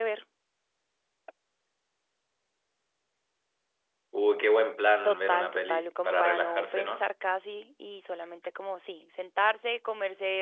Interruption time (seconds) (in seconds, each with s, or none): 5.0 s